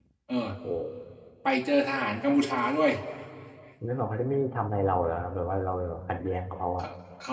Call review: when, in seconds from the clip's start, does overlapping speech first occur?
none

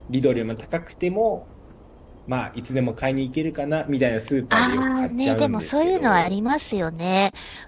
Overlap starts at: 4.5 s

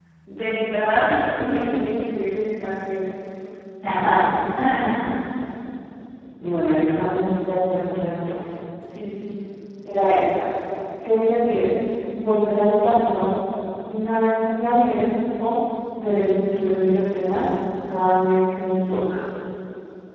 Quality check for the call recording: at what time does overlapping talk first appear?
none

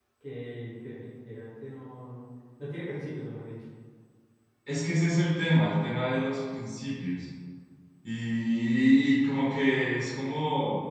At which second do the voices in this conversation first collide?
none

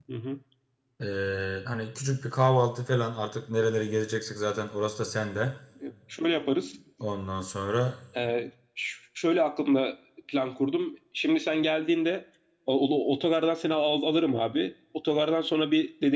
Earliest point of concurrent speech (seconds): none

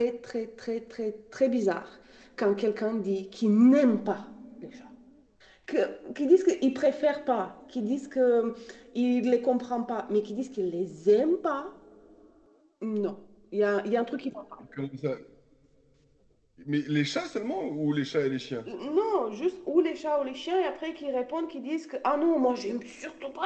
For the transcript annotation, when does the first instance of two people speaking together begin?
none

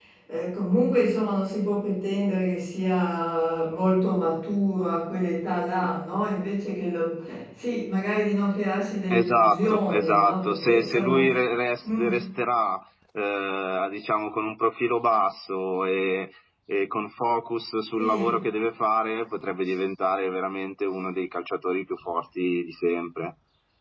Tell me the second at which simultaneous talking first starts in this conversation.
9.1 s

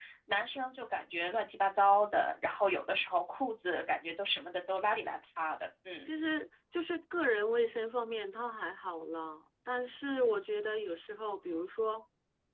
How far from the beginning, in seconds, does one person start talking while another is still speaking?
none

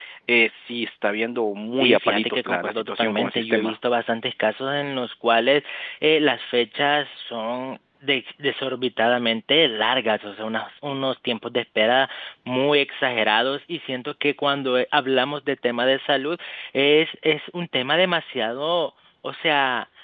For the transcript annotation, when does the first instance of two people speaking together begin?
1.8 s

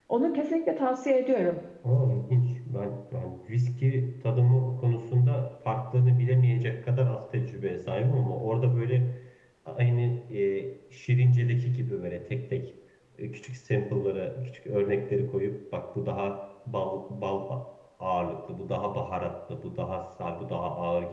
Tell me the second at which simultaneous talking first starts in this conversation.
none

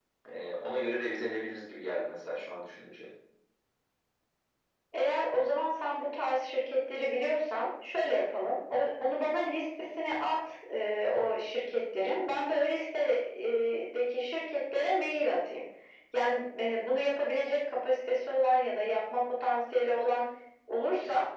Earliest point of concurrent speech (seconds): none

